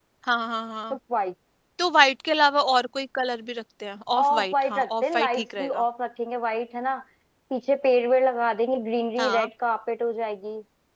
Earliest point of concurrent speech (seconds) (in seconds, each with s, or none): 4.2 s